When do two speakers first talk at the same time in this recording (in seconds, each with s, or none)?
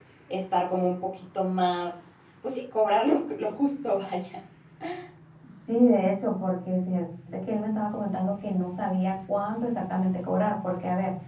none